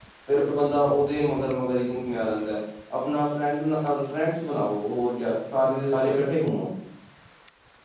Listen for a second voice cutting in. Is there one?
No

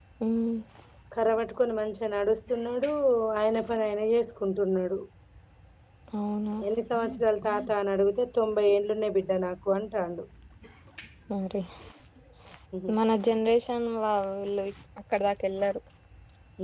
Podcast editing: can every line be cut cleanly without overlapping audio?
Yes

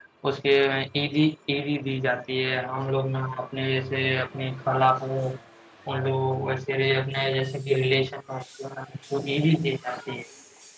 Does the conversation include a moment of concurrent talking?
No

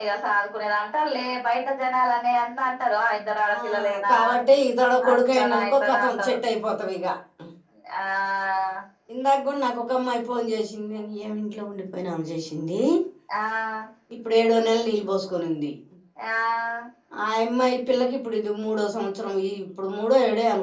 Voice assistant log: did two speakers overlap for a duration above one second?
Yes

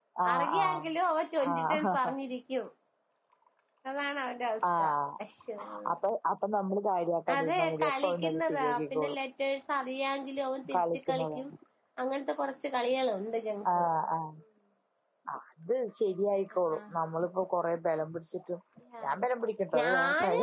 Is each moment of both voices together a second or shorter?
No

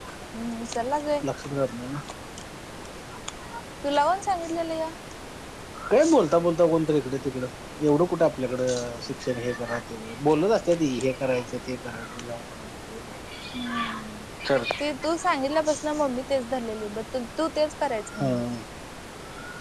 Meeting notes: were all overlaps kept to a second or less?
Yes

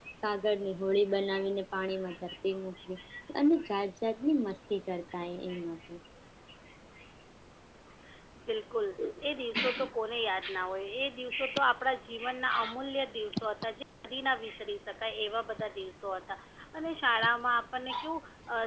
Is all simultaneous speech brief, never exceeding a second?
Yes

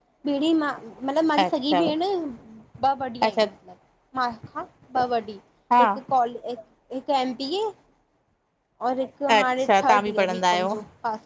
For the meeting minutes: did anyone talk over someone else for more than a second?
Yes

